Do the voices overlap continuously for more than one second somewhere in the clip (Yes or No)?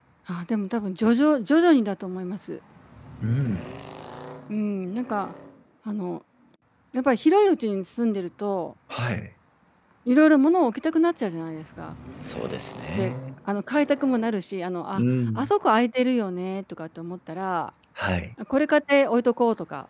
No